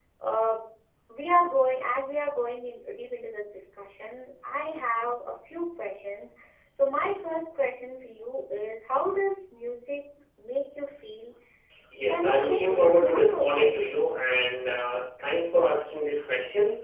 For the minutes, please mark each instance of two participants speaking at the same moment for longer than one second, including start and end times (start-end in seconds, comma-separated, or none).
12.1-13.7